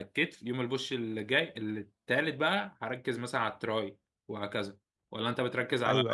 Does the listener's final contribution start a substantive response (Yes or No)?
Yes